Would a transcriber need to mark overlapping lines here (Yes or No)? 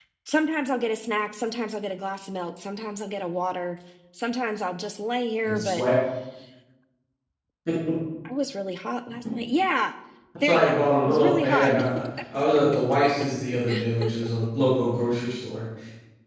Yes